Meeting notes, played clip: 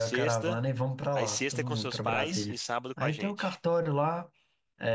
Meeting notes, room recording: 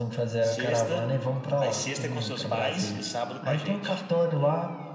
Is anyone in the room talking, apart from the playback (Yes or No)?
No